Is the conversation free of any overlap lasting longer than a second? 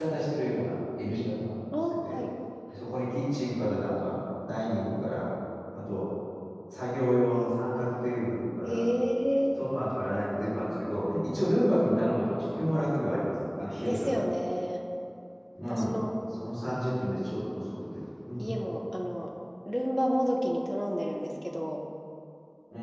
Yes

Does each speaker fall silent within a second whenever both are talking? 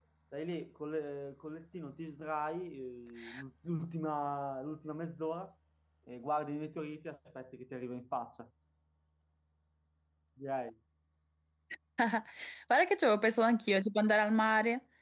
Yes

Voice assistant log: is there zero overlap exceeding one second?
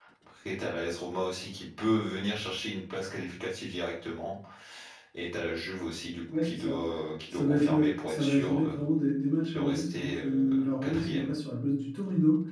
No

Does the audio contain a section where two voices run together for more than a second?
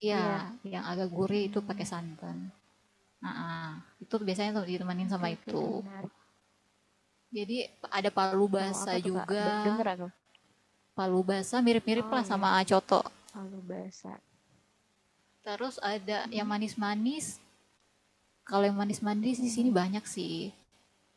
Yes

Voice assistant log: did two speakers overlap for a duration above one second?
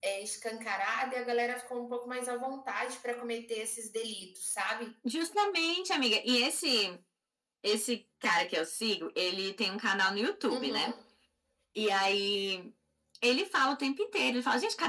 No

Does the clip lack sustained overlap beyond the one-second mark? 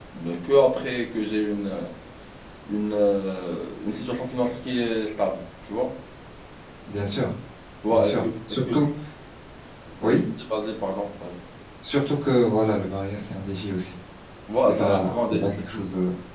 No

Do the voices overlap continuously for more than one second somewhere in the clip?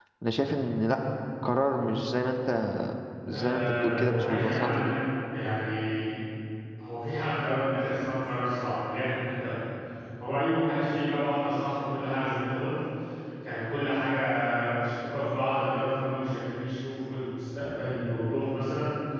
Yes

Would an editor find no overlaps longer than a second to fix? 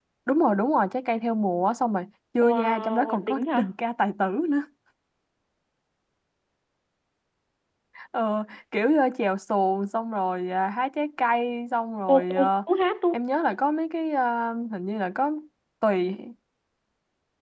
No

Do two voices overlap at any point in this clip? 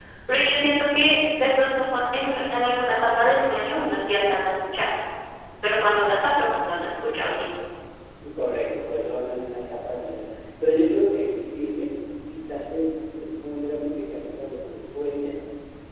No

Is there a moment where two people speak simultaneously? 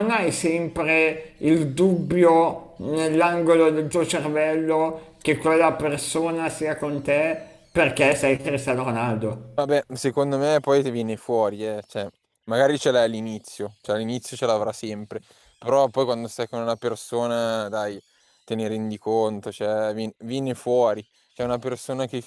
No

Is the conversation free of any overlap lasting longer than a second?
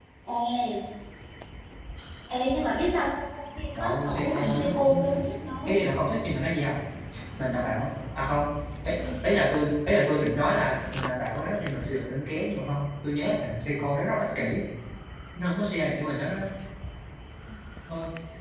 No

